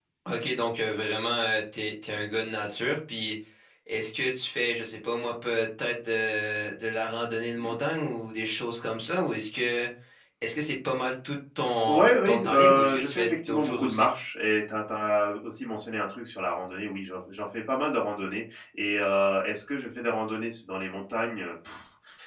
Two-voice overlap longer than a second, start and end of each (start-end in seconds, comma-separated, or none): 11.9-14.1